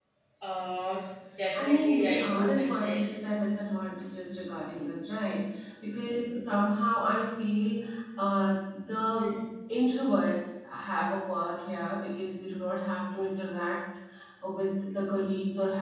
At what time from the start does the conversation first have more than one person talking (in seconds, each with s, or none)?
1.6 s